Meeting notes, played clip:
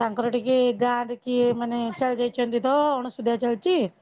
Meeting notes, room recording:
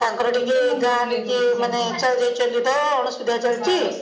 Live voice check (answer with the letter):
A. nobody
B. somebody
B